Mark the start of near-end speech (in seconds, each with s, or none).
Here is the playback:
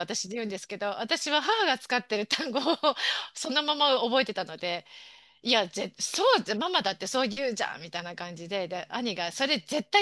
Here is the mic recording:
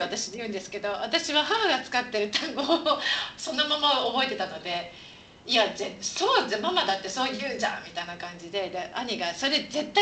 none